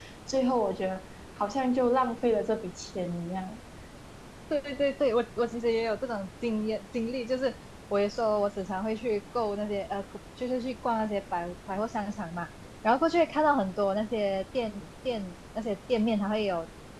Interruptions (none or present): none